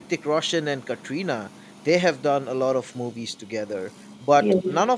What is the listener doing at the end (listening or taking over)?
listening